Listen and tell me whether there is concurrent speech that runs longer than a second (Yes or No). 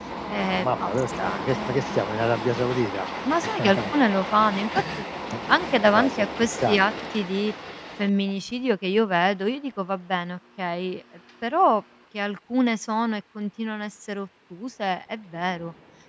Yes